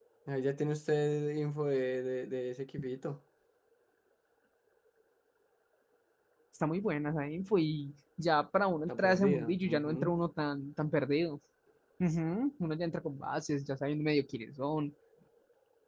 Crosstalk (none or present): present